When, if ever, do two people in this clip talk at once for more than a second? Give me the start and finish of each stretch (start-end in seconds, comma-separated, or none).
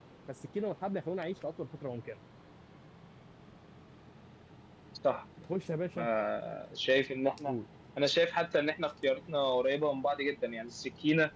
none